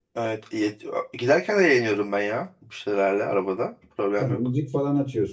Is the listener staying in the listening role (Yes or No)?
No